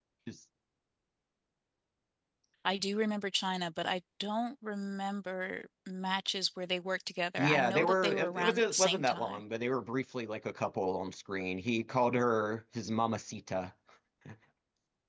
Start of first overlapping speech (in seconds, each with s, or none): 7.4 s